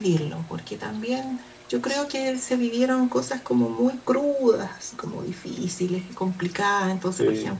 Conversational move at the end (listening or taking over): listening